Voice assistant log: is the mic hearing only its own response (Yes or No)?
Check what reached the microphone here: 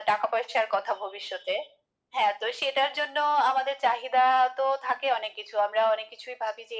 Yes